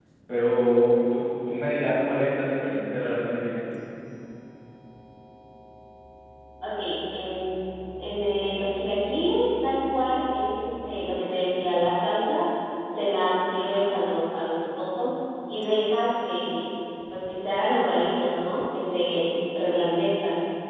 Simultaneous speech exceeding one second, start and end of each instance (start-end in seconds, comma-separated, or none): none